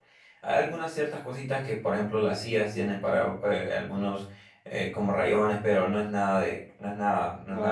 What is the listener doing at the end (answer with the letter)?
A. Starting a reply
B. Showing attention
A